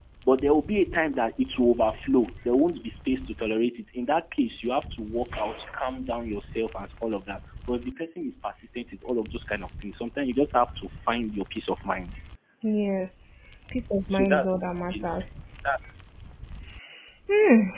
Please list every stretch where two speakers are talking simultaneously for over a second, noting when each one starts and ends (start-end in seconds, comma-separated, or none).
none